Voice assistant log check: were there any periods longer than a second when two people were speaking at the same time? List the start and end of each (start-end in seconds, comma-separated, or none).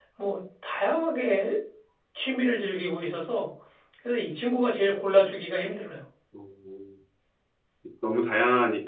none